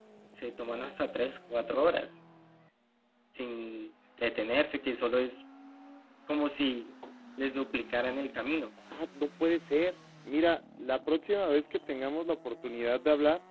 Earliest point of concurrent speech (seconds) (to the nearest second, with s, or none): none